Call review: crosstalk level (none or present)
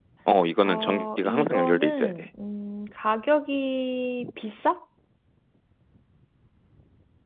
present